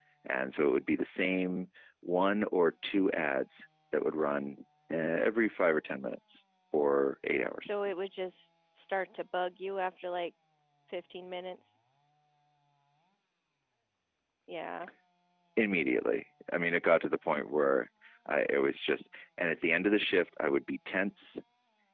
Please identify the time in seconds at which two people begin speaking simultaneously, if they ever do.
none

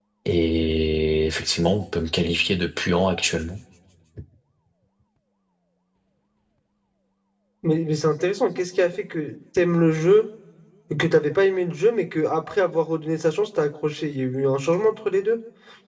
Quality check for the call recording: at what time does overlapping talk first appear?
none

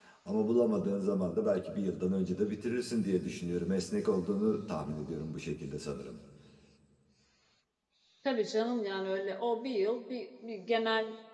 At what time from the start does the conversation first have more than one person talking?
none

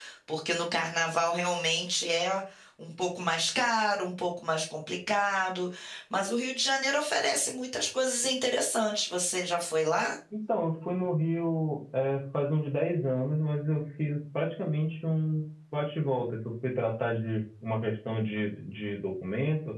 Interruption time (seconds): none

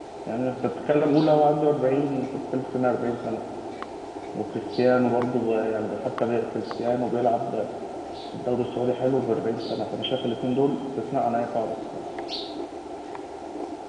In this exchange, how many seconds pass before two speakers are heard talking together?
none

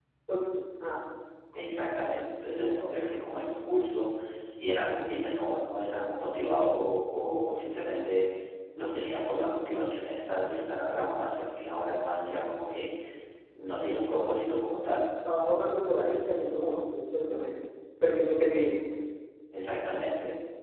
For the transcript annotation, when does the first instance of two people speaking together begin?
none

